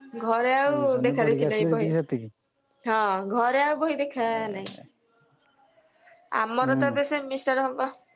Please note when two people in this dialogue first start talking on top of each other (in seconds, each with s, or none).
0.7 s